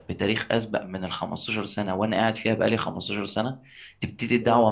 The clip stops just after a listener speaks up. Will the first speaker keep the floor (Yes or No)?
Yes